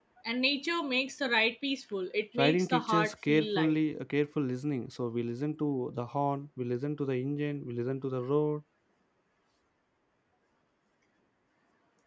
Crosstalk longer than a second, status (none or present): present